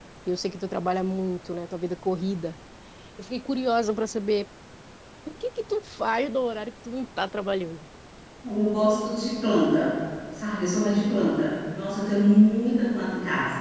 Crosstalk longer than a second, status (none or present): none